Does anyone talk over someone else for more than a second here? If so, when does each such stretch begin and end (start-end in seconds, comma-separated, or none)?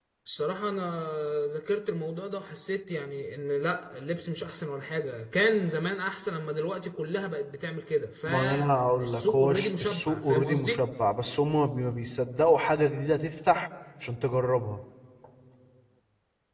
8.2-10.8